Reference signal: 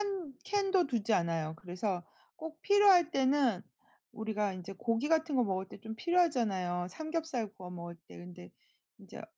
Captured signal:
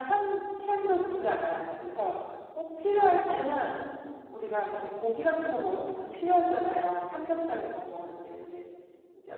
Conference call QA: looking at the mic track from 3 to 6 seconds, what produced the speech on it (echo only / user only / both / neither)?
echo only